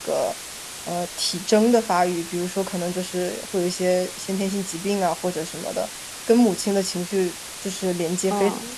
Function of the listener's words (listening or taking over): taking over